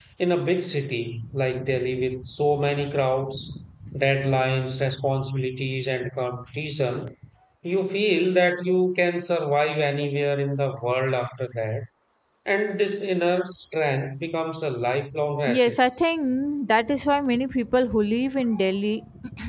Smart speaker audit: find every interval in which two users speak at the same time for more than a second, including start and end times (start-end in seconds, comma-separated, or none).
none